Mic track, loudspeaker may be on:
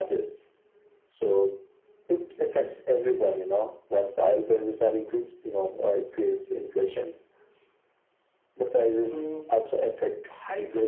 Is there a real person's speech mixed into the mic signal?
Yes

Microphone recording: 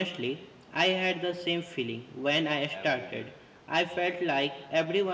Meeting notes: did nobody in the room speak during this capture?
No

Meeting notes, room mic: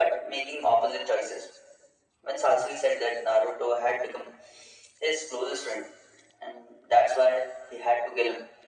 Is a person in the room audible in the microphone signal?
No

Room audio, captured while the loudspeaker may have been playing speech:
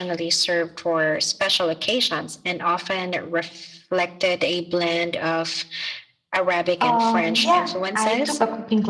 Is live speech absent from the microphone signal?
No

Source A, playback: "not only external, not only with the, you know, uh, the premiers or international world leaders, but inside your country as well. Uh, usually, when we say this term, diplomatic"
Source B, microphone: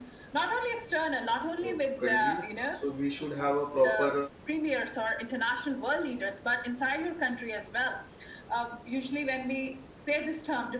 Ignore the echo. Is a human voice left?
Yes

